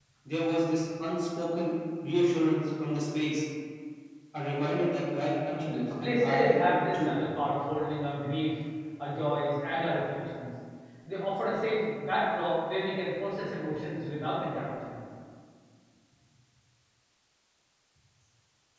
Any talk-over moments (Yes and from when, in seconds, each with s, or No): Yes, from 5.5 s